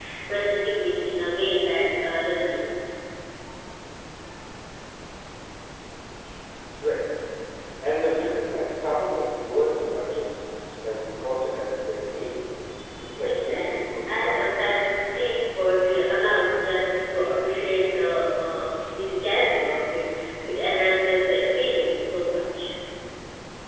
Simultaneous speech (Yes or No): Yes